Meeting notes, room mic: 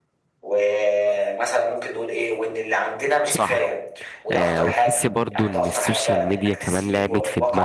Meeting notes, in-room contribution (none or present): present